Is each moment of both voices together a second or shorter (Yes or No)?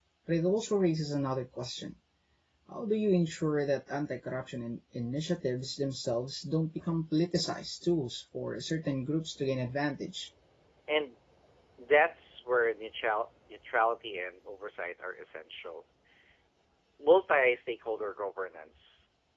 Yes